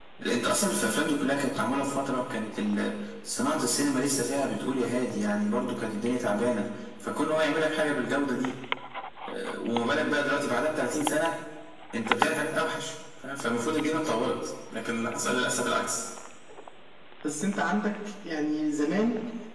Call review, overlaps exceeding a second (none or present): none